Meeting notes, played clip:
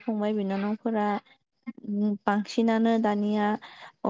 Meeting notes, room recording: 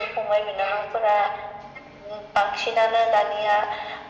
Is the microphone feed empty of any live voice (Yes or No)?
Yes